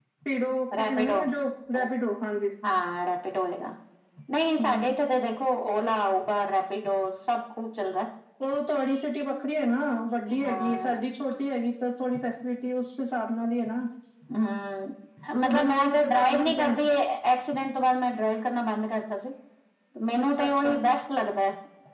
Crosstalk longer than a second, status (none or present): present